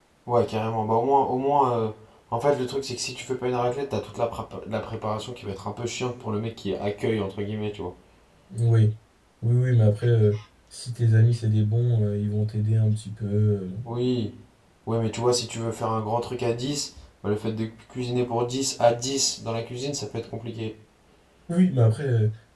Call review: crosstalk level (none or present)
none